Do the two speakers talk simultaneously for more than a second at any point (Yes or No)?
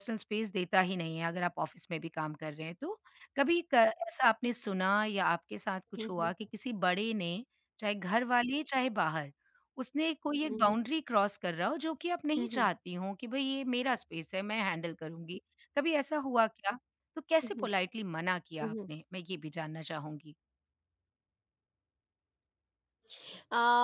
No